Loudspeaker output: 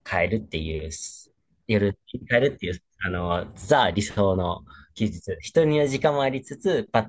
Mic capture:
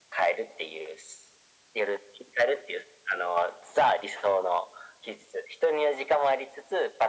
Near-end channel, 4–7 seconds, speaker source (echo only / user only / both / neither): echo only